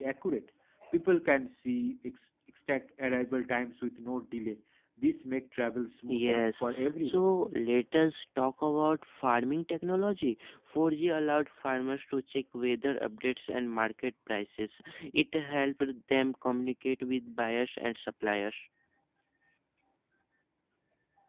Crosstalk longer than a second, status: present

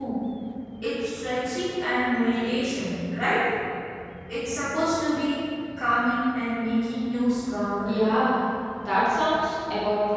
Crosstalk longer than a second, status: none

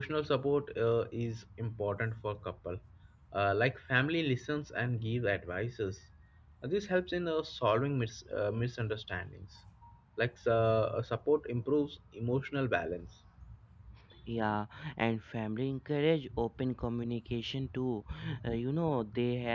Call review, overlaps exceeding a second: none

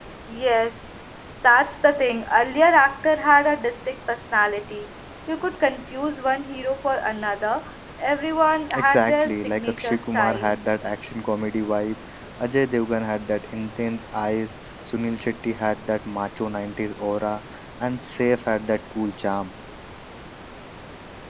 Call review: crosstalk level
present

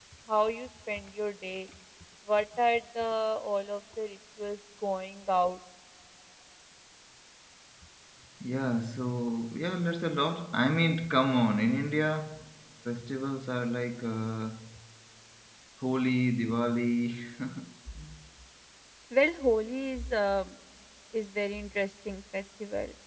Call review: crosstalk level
none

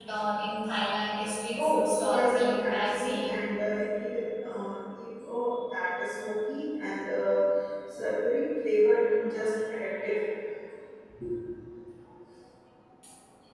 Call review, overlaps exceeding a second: present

